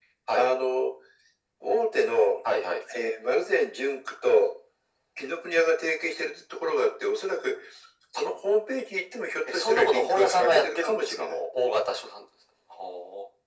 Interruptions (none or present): present